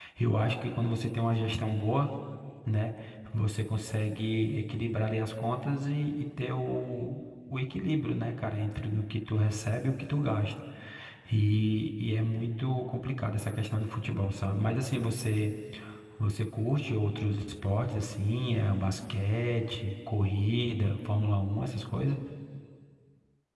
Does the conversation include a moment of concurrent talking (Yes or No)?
No